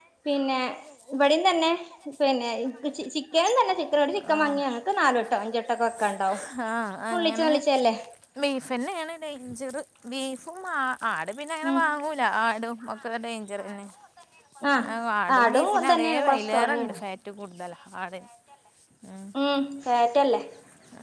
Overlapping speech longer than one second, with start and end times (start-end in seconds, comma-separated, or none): 15.4-16.9